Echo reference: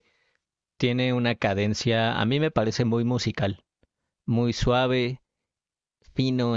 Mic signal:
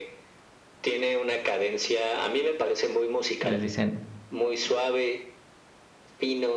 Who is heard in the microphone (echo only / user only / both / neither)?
both